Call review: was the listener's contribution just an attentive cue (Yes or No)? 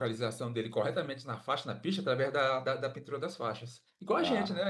No